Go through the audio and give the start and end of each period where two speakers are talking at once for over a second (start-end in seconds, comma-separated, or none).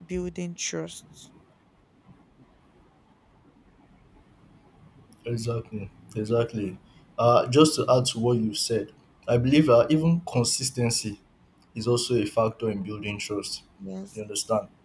none